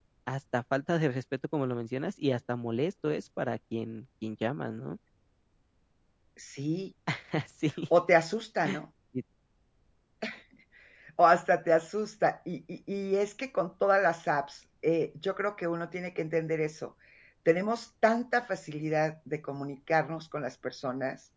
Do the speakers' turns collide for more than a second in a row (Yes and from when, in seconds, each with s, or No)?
No